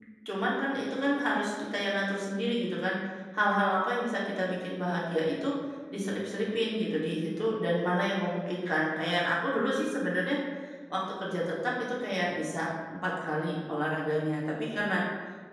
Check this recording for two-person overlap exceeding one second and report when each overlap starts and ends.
none

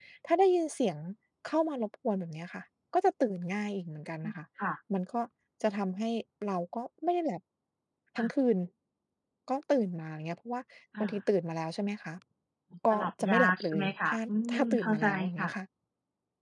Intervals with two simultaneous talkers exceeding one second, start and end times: 12.9-15.5

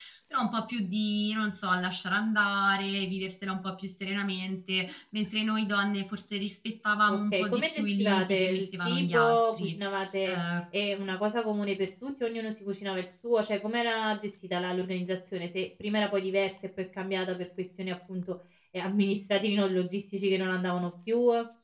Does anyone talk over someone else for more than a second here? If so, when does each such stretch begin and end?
7.1-9.8

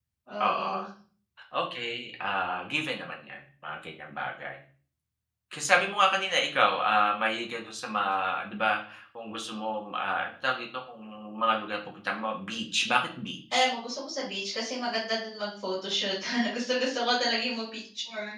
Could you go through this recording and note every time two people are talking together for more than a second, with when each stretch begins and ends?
none

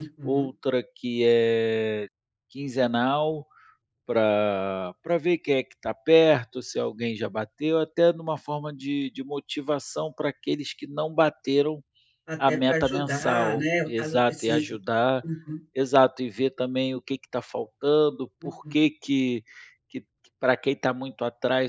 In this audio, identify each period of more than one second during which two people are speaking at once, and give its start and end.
12.5-14.6

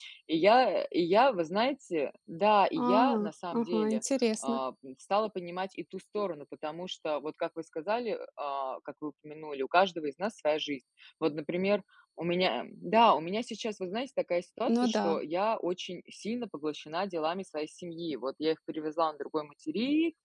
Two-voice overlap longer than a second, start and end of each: 2.8-4.0

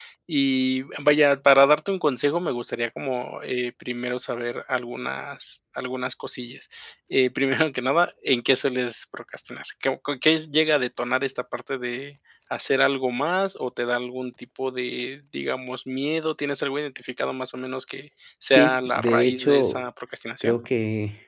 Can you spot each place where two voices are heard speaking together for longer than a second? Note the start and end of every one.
18.5-19.8

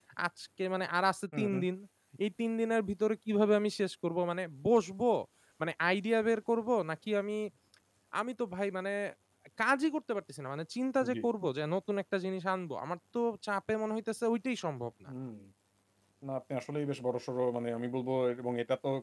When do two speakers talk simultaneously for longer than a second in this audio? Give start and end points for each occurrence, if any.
none

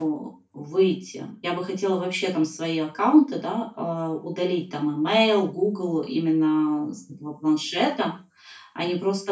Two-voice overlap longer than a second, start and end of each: none

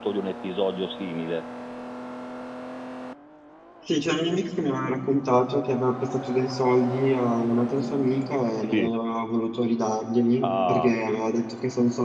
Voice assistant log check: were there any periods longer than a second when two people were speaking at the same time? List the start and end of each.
none

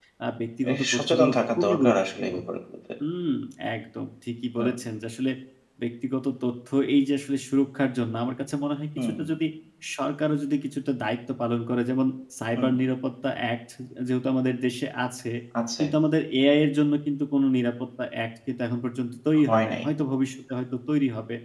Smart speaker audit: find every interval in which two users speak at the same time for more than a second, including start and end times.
0.7-2.3

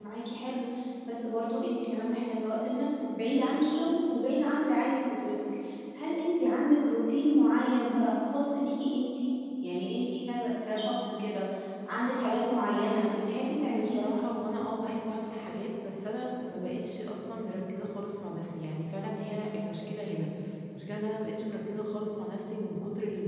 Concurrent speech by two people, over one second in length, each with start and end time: none

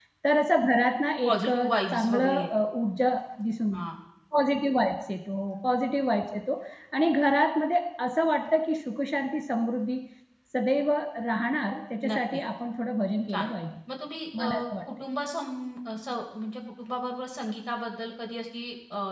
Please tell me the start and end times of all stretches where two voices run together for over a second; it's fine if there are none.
1.2-2.5

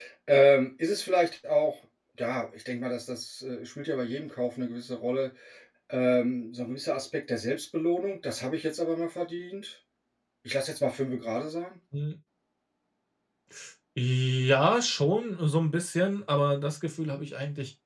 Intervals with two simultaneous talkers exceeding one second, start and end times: none

